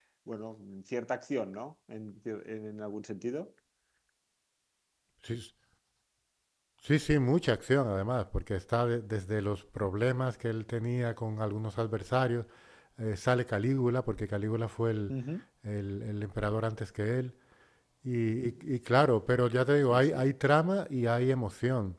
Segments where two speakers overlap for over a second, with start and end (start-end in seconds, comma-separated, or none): none